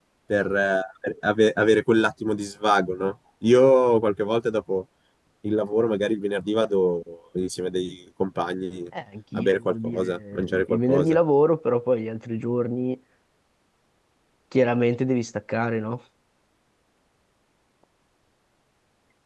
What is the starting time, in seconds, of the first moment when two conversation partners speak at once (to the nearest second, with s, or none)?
9 s